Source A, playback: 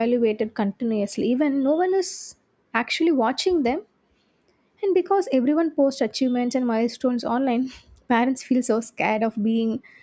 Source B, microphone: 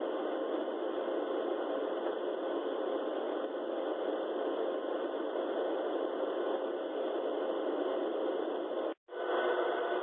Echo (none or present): none